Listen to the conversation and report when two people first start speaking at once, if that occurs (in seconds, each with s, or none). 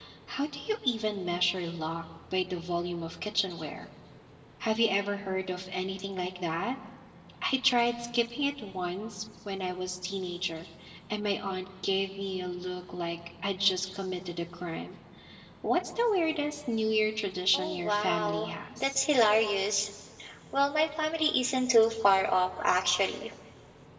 17.5 s